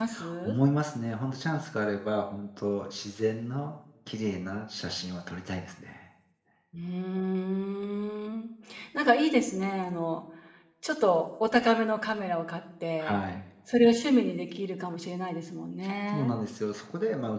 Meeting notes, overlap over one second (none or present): none